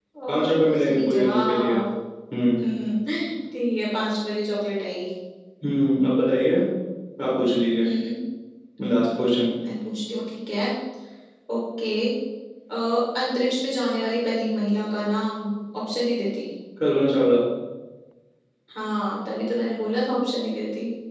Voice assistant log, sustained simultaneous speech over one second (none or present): present